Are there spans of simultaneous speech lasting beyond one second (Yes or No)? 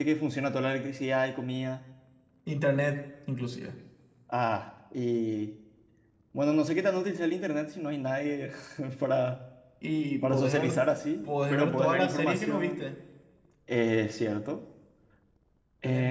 Yes